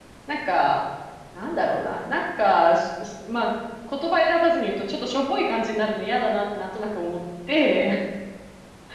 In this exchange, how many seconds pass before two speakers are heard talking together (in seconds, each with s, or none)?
none